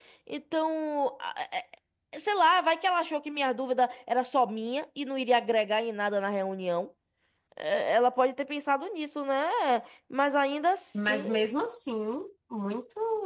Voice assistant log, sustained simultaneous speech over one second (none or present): none